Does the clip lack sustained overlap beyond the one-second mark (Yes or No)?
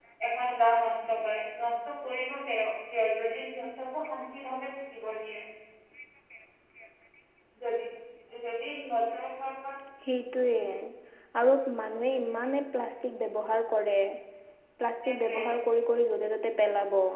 Yes